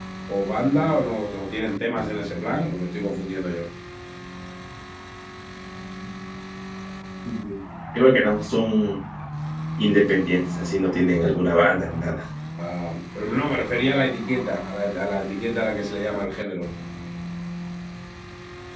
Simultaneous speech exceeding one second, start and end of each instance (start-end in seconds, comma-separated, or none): none